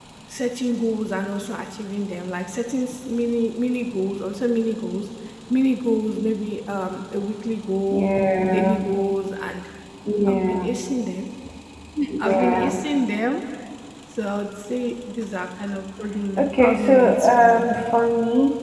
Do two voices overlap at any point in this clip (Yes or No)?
Yes